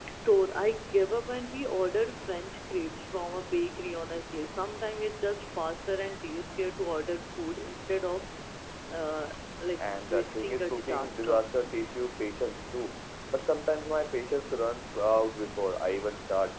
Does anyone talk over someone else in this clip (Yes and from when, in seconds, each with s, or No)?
Yes, from 9.8 s